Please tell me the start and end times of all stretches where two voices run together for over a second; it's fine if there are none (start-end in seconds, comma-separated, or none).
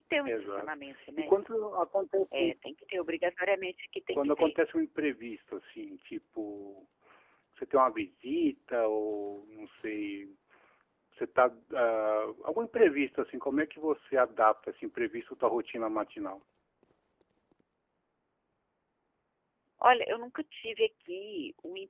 none